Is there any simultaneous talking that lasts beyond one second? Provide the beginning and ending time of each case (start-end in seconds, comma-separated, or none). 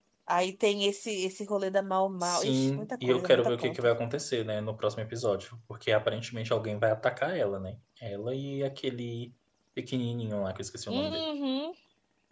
2.2-3.9